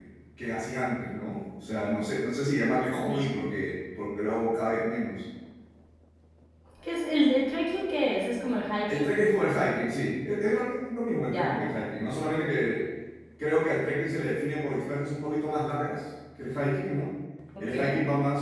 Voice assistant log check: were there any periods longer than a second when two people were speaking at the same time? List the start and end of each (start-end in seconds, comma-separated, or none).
none